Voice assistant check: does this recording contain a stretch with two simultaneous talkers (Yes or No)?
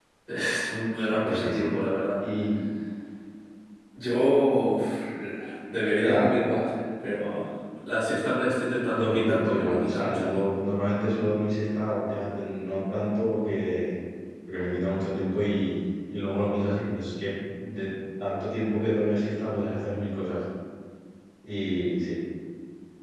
Yes